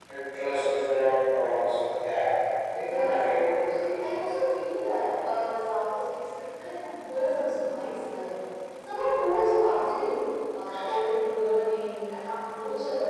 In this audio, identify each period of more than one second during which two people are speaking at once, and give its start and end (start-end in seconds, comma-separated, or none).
2.7-4.2